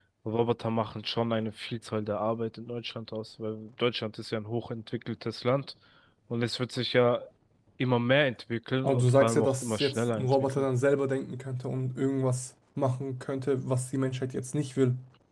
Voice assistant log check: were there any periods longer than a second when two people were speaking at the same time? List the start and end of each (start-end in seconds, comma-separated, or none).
8.8-10.7